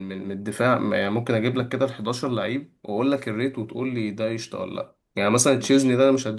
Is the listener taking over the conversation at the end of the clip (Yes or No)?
No